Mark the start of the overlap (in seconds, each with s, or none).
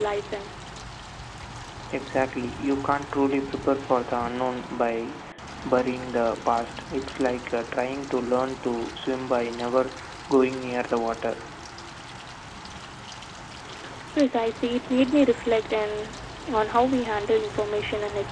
none